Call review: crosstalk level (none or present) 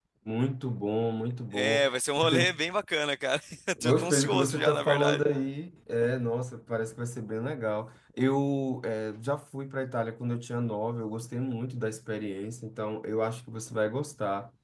present